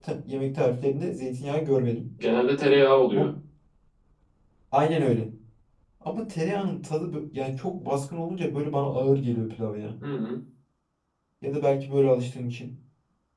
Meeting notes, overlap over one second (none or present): none